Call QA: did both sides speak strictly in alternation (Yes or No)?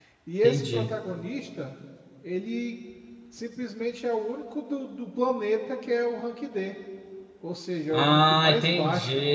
No